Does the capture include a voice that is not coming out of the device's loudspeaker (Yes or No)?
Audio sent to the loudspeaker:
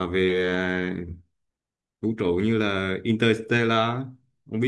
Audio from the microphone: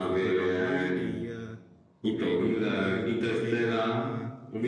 Yes